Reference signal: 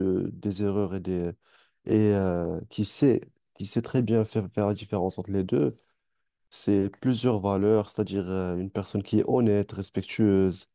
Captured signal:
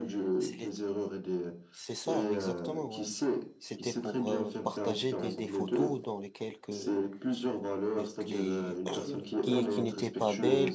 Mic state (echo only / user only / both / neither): both